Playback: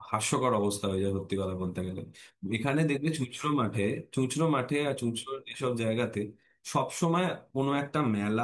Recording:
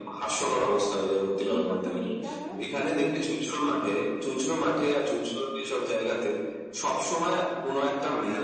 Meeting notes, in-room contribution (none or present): present